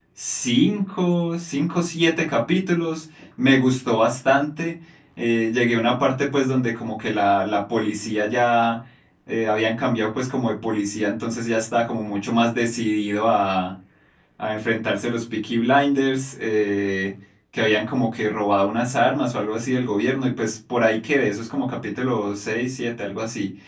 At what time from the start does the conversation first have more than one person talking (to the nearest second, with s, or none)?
none